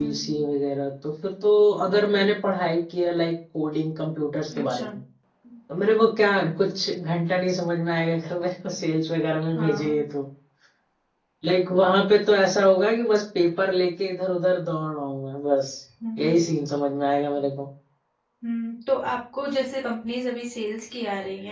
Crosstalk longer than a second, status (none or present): none